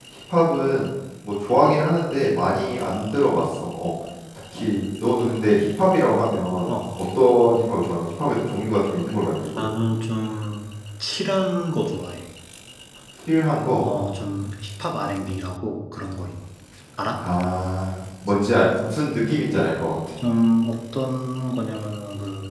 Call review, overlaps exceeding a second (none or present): none